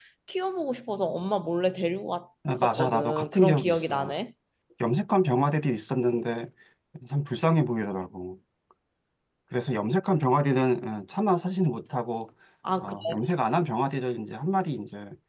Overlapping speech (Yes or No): Yes